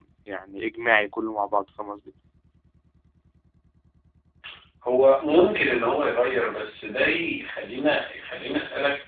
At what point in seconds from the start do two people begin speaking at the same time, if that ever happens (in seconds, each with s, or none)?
none